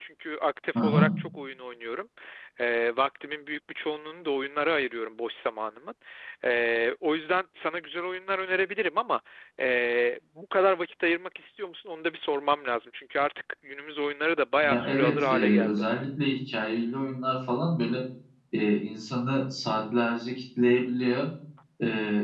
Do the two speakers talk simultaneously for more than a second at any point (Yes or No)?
Yes